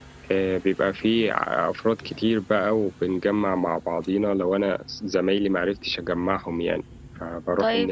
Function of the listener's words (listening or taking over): taking over